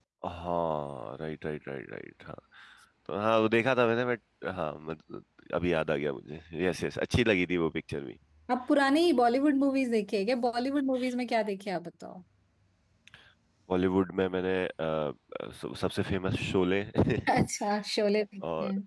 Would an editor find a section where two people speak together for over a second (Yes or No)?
No